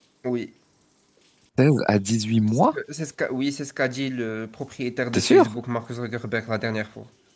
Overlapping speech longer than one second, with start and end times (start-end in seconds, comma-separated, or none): none